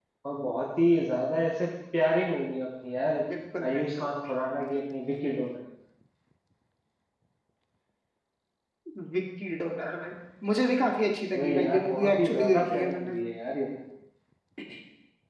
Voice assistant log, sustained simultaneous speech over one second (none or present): present